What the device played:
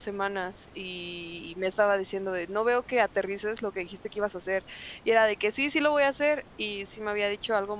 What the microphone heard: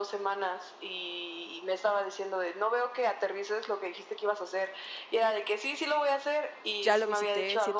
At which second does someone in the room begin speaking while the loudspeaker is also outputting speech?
7 s

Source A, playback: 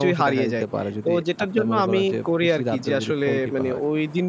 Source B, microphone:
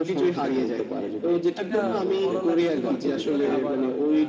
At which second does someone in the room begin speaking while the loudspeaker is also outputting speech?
2 s

